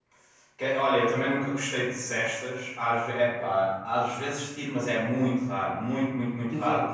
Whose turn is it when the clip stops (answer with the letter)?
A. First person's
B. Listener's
B